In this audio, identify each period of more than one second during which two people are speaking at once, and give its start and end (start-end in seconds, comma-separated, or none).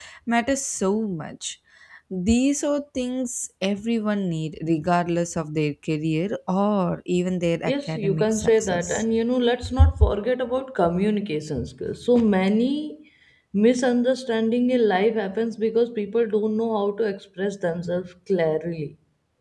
7.7-9.0